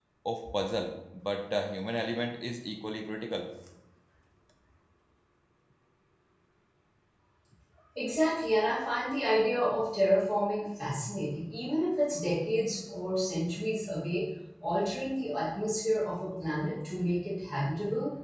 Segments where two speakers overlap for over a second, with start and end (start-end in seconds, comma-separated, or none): none